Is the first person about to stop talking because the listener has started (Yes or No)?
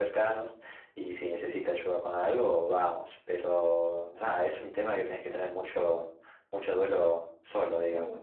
Yes